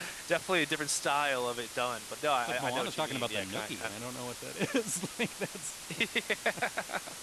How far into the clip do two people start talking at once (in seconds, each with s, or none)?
2.5 s